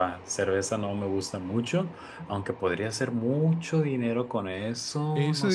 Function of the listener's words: taking over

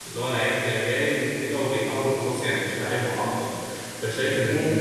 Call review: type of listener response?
listening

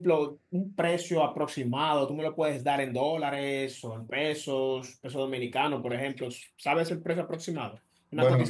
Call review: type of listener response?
taking over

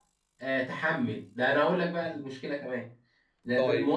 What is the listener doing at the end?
listening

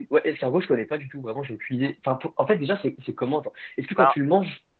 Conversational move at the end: listening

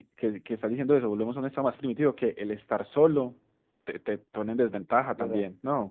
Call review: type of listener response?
taking over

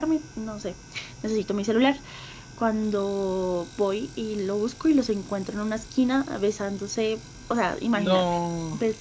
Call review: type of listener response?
listening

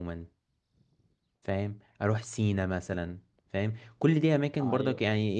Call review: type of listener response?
listening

